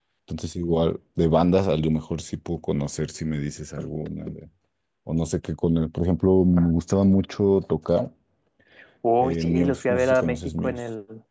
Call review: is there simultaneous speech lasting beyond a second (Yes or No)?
Yes